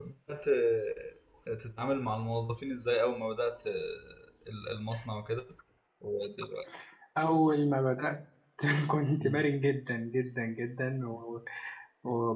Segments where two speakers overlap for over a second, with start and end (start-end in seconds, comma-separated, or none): none